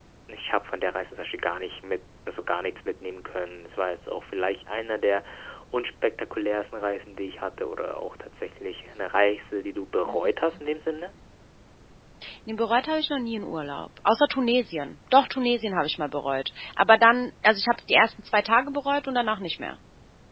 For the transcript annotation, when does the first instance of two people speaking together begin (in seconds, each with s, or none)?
none